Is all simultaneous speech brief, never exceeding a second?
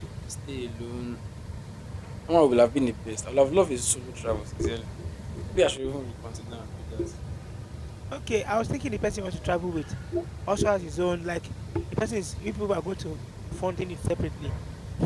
Yes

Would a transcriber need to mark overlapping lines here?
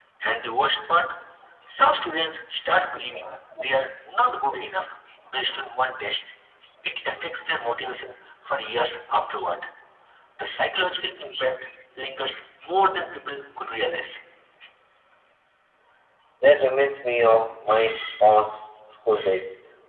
No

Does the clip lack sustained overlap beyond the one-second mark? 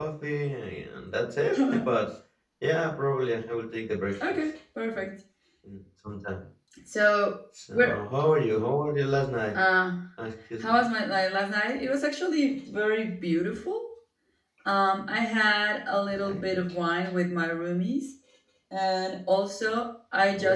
Yes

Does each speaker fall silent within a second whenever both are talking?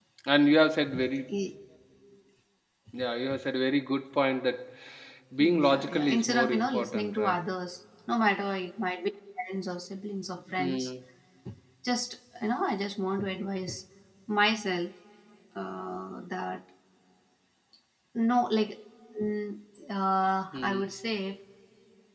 No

